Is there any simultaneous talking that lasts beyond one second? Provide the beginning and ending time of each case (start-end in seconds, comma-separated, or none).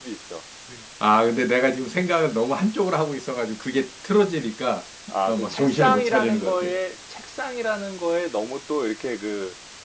5.3-6.7